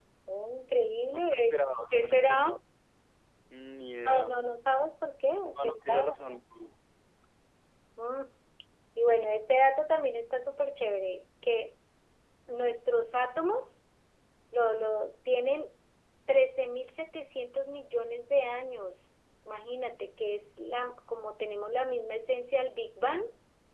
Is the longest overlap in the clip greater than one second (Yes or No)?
Yes